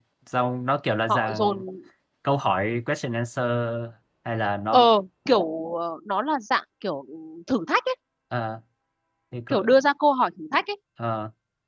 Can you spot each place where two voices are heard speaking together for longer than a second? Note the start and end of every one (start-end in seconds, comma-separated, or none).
none